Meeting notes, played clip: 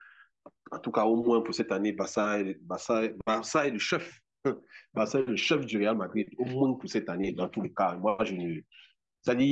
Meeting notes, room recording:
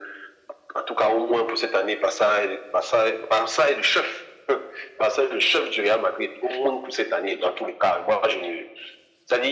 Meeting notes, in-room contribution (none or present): none